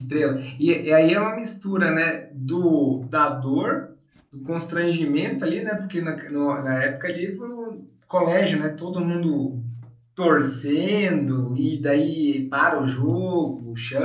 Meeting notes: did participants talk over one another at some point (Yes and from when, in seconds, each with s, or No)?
No